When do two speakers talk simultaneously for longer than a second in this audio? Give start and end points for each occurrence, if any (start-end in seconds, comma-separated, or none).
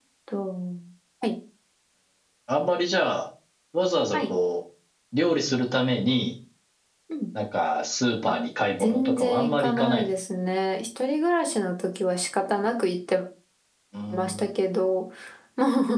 8.8-10.1